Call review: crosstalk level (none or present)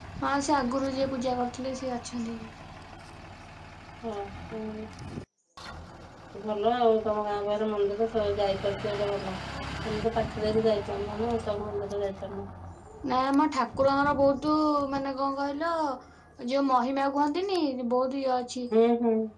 none